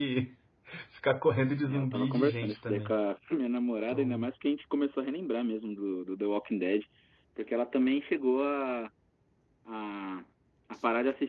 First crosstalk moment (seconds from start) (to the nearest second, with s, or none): 2 s